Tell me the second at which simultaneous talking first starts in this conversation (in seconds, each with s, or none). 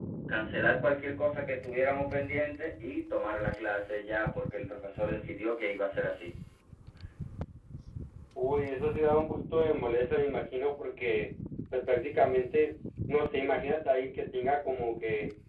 none